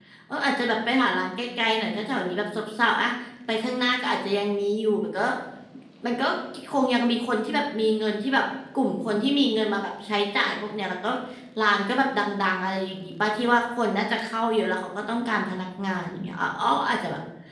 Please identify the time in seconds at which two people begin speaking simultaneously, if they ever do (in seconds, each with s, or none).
none